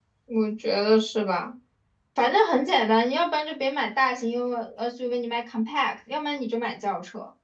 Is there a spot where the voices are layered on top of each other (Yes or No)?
No